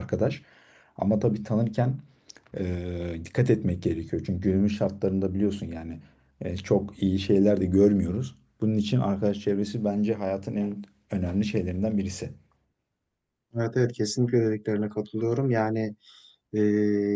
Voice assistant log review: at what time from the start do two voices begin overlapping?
none

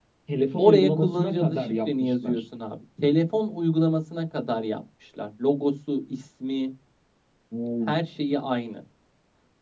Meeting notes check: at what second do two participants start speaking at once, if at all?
0.6 s

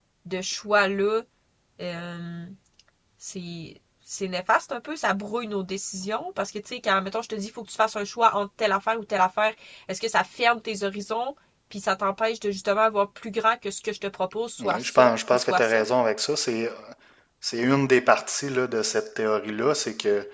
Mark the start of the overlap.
14.6 s

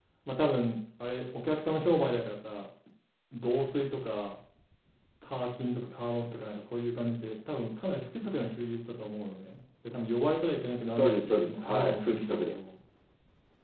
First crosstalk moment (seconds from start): 10.9 s

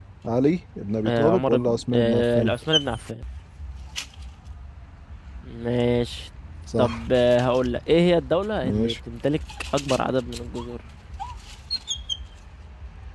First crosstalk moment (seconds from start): 1.1 s

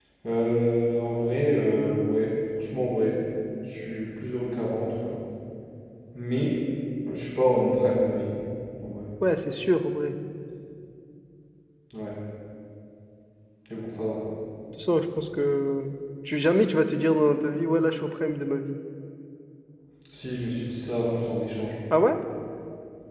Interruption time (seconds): none

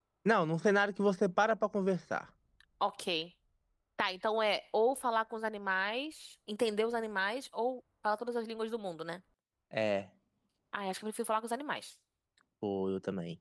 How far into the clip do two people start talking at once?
none

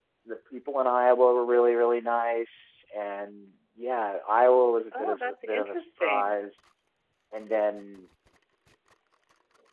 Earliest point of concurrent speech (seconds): 4.9 s

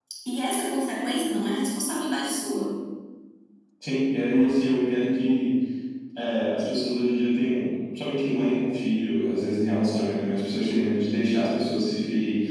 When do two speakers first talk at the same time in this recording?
none

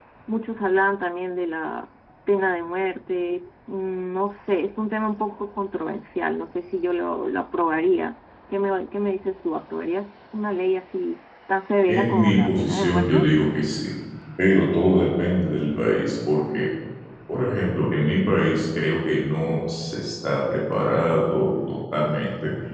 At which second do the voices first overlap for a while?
11.9 s

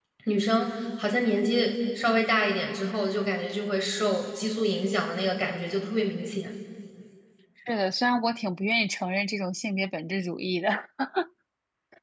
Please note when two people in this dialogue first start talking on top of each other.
none

